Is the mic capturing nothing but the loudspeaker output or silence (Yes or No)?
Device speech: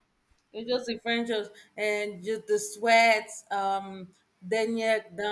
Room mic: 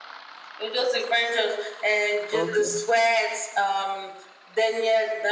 No